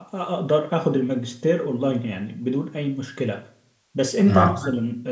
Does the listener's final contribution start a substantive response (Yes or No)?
No